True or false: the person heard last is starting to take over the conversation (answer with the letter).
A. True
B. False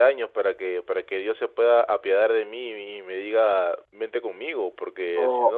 A